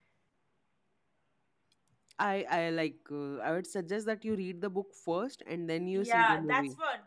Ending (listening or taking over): taking over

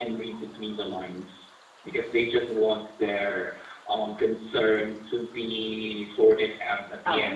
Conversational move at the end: taking over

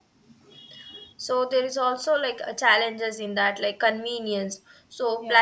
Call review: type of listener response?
listening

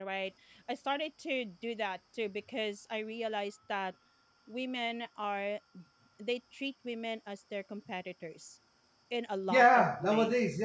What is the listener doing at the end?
taking over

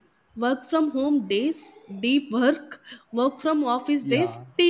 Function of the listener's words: taking over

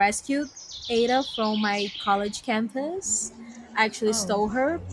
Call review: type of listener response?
listening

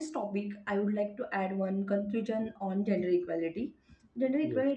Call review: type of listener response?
listening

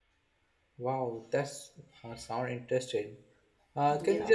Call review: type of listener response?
listening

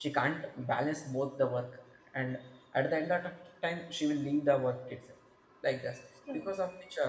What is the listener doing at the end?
listening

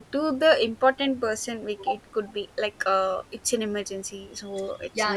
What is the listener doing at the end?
taking over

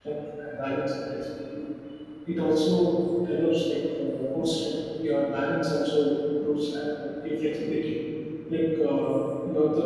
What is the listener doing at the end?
listening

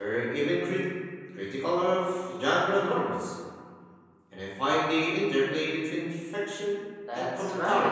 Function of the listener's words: taking over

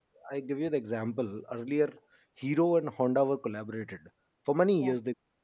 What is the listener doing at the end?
listening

